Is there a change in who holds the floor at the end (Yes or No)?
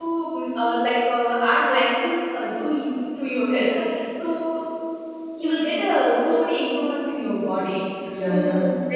Yes